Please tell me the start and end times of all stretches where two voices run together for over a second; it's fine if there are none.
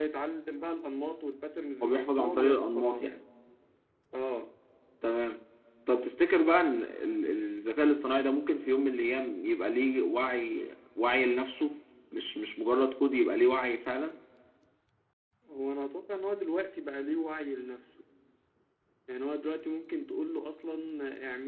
1.8-3.0

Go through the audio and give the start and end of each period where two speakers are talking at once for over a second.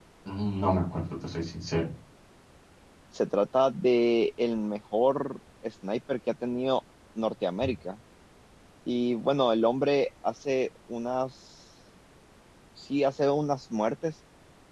none

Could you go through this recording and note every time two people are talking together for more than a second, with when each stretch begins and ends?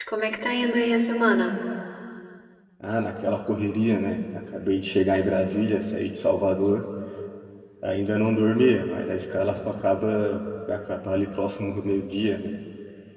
none

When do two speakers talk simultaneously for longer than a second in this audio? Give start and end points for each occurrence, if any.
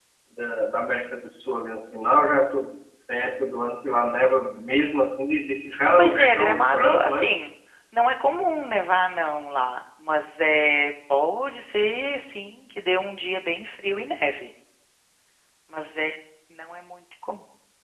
6.0-7.2

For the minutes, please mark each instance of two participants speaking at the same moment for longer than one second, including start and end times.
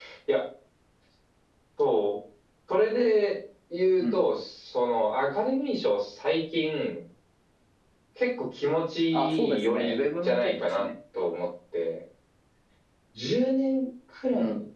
9.1-10.8

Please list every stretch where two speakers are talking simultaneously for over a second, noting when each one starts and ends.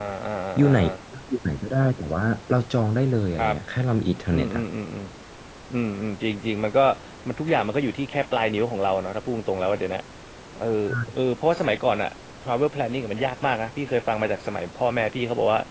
none

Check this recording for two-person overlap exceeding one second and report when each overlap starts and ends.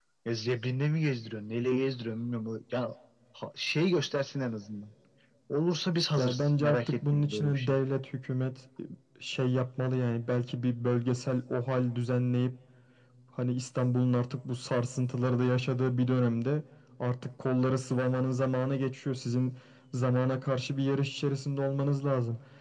6.2-7.8

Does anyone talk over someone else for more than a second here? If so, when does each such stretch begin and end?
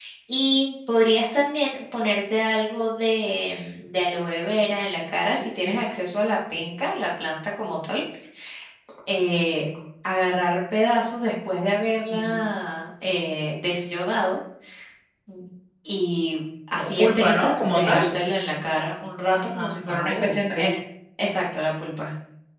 16.7-18.1, 19.3-20.6

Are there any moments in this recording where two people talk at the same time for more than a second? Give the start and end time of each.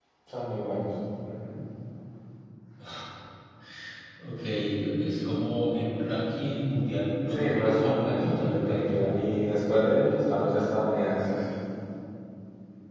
7.2-9.1

